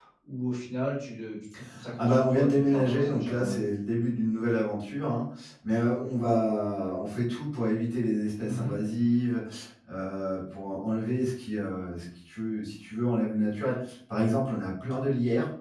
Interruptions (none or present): present